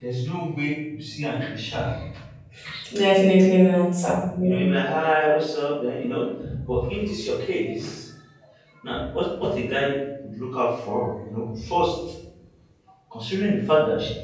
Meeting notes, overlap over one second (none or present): none